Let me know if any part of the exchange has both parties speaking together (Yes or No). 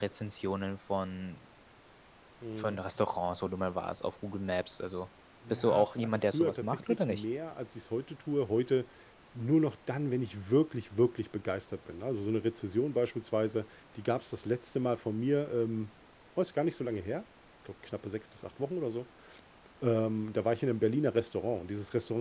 Yes